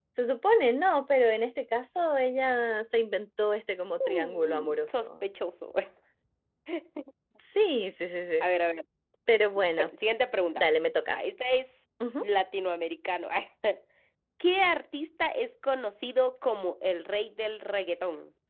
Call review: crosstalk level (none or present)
present